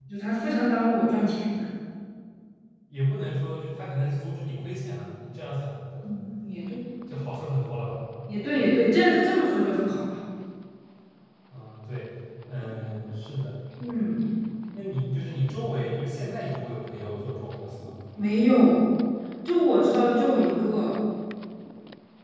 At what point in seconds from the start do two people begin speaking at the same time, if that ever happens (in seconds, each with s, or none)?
none